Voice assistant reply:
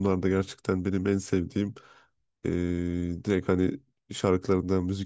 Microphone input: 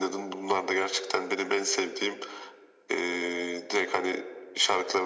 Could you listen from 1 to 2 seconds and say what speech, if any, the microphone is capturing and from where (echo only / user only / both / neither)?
echo only